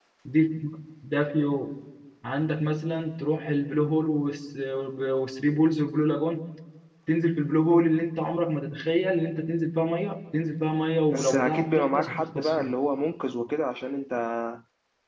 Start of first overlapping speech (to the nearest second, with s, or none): 11 s